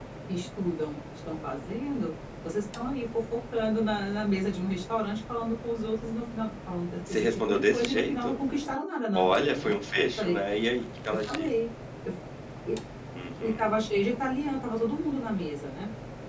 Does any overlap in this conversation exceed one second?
Yes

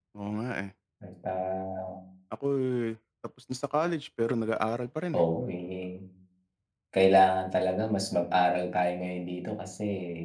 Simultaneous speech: No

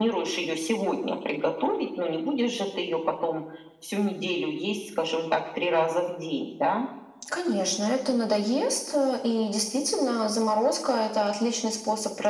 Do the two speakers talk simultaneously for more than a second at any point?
No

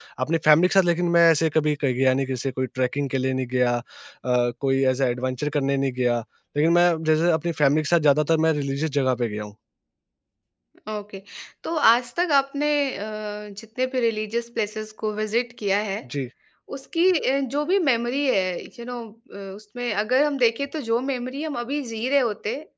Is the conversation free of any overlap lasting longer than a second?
Yes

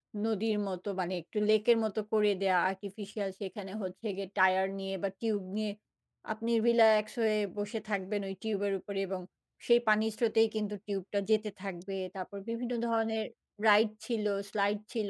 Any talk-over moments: No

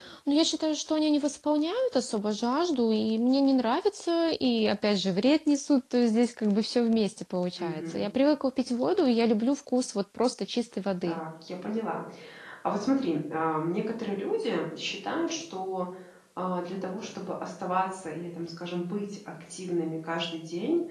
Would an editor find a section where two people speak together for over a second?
No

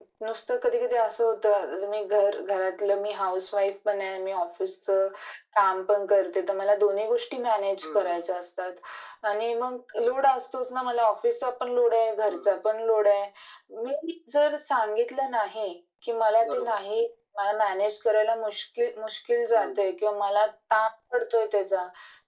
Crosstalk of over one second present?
No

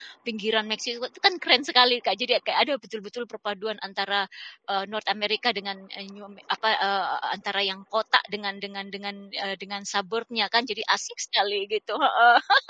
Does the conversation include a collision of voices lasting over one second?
No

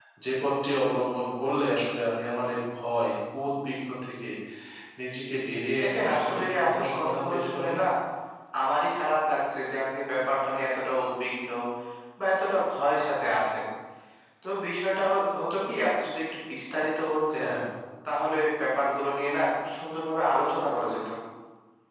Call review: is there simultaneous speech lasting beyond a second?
Yes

